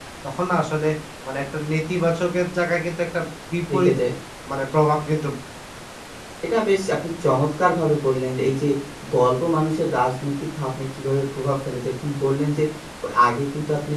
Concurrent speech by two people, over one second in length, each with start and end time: none

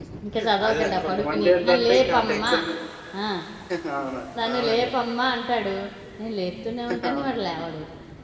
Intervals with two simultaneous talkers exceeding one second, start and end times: 0.7-2.5

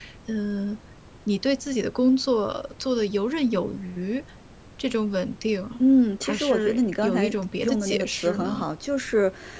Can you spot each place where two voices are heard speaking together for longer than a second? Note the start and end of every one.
6.2-8.7

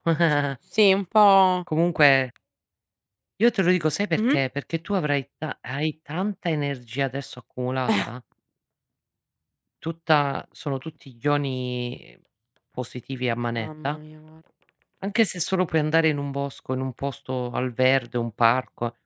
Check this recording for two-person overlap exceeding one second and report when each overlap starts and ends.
none

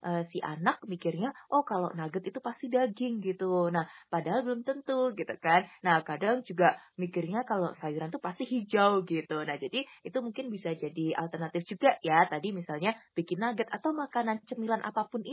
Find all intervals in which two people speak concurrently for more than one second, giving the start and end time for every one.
none

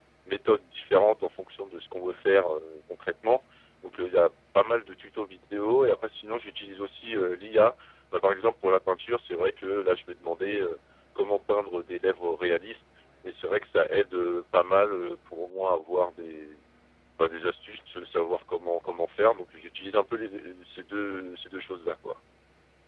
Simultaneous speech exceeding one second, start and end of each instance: none

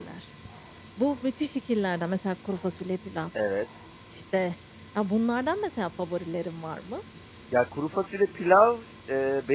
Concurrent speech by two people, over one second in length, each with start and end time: none

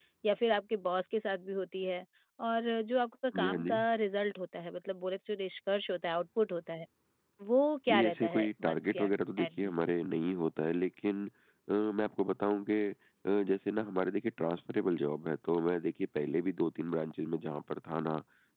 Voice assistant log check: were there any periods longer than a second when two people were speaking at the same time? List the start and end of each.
7.9-9.7

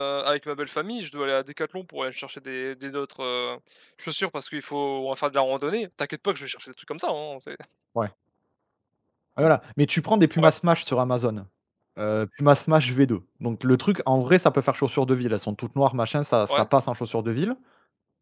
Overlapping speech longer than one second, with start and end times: none

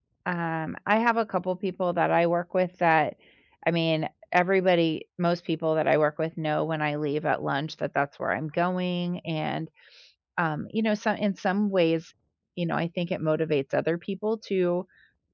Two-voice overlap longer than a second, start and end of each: none

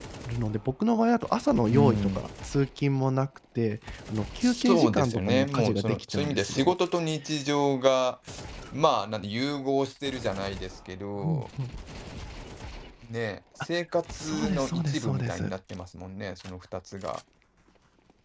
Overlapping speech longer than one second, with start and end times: 4.4-6.7, 14.2-15.5

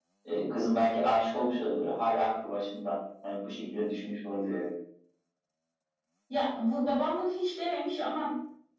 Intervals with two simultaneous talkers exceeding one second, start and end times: none

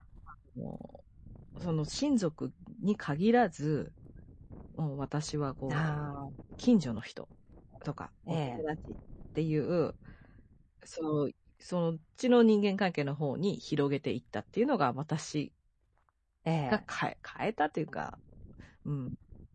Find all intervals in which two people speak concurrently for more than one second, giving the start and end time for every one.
none

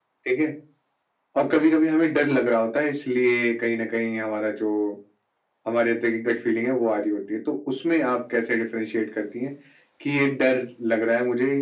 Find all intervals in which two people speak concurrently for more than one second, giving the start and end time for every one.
none

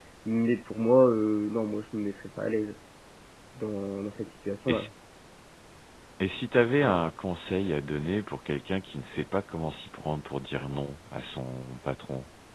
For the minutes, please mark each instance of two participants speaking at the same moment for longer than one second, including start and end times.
none

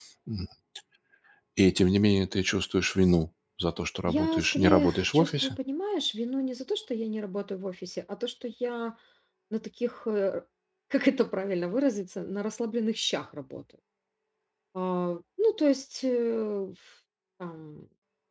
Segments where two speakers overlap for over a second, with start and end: 4.1-5.6

